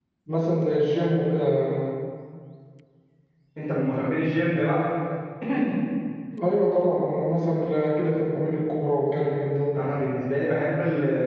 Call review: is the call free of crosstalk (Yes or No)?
Yes